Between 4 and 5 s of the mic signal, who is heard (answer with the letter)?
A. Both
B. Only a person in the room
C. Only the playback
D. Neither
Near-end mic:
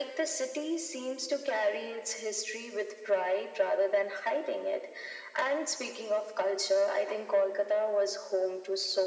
C